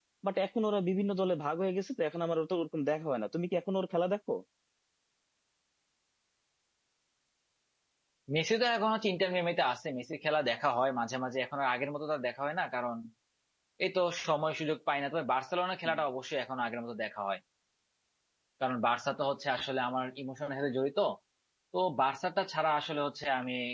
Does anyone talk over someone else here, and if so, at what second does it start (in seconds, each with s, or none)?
none